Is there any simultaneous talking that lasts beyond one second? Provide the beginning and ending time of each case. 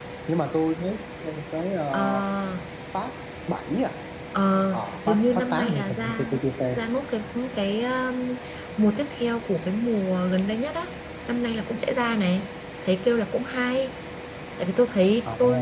5.1-6.3

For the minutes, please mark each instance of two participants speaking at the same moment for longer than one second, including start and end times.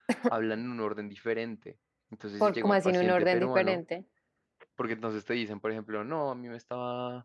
2.4-3.8

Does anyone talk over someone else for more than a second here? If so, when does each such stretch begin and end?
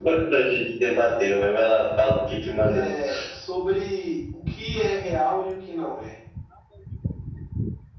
none

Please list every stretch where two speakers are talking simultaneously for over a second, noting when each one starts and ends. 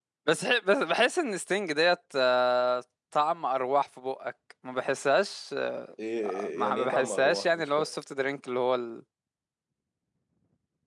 6.5-7.9

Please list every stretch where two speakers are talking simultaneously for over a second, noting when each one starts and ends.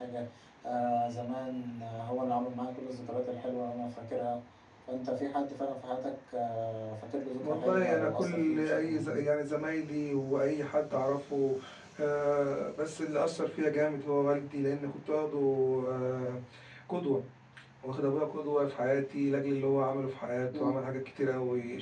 7.4-9.3

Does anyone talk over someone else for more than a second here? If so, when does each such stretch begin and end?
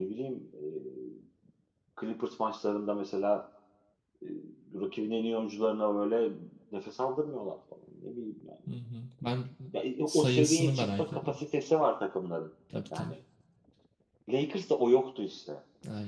10.1-11.4

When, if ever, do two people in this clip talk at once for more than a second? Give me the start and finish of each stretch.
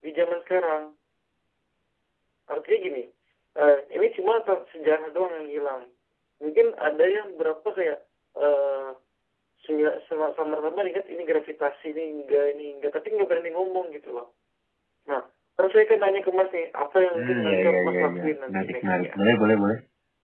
17.1-19.1

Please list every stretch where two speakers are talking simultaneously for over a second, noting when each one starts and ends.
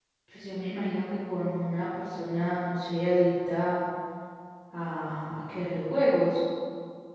none

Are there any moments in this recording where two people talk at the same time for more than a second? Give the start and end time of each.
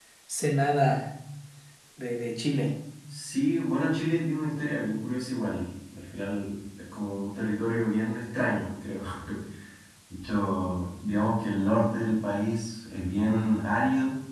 none

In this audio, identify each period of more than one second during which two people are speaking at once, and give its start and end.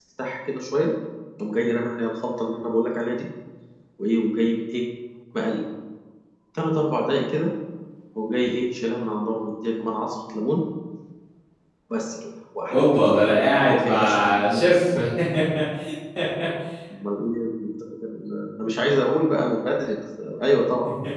13.6-15.0

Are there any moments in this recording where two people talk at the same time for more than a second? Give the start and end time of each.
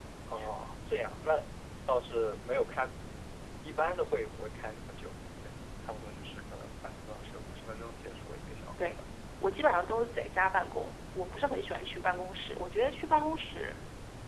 none

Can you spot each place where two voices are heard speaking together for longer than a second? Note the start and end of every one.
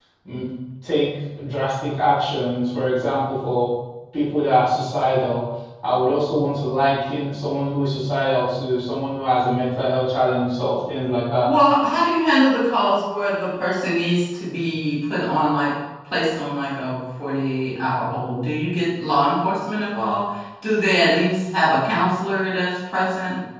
none

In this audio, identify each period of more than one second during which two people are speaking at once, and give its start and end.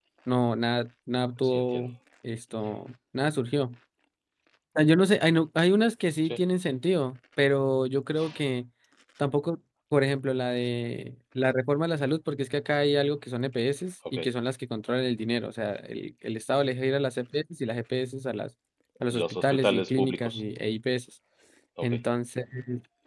19.1-20.4

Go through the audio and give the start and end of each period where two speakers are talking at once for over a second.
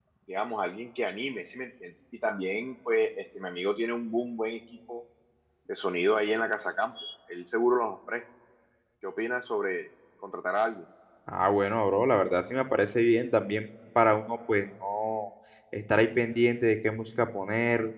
none

